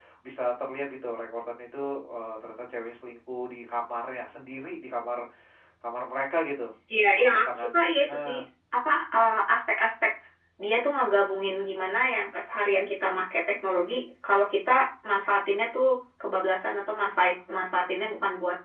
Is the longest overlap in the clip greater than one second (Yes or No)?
Yes